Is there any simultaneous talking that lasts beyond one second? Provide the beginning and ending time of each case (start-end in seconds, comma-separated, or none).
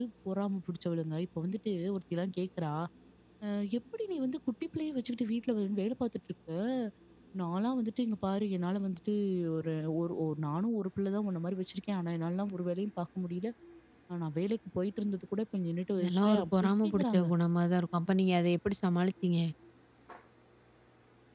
16.0-17.2